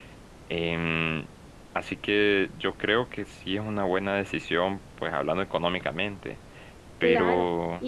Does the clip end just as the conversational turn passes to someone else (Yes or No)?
Yes